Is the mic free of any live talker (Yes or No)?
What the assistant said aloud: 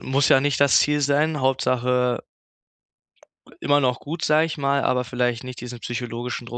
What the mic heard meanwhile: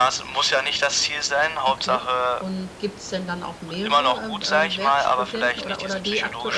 No